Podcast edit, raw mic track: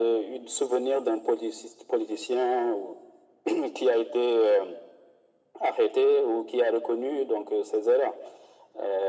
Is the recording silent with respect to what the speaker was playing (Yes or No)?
No